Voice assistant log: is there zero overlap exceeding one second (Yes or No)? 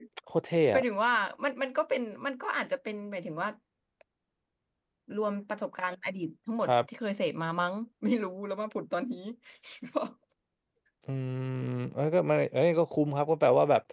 Yes